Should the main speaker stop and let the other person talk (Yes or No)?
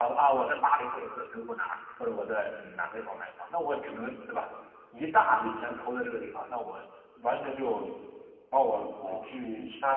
No